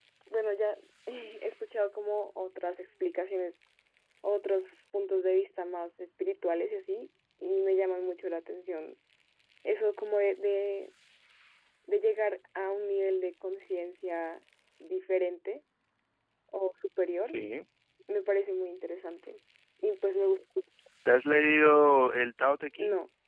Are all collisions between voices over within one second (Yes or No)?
Yes